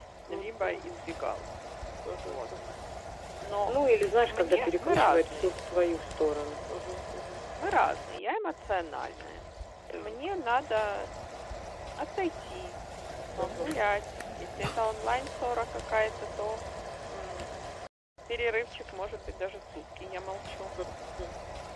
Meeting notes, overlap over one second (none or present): present